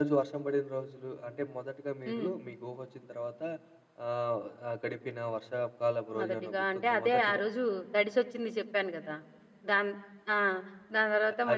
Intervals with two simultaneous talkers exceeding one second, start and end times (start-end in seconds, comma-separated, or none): 6.2-7.4